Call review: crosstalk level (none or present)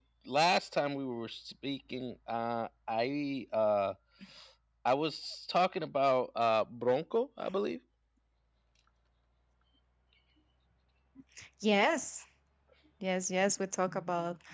none